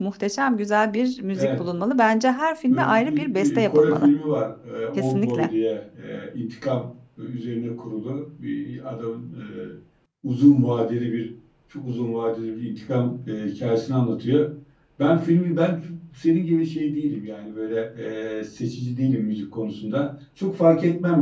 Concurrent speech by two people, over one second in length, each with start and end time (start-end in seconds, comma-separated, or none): 2.7-4.1